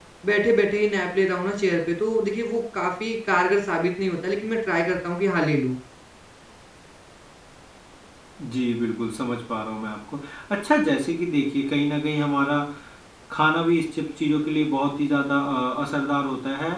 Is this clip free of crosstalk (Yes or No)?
Yes